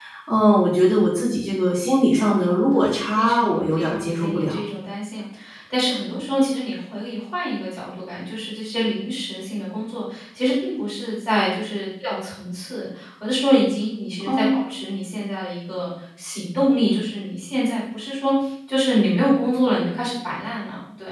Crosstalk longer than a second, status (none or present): present